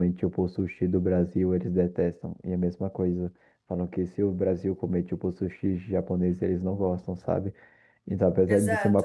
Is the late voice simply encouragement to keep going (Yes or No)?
Yes